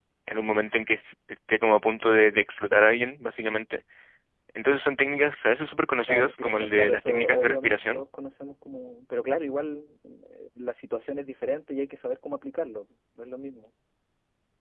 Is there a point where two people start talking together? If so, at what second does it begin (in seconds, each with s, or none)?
6.1 s